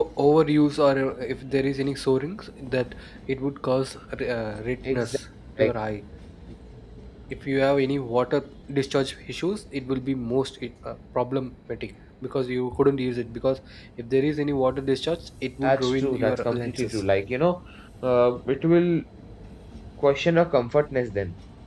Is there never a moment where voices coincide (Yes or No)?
No